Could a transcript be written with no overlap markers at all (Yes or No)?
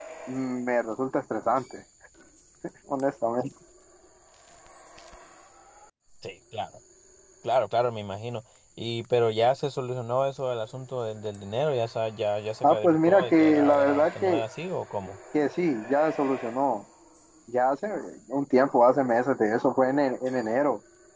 No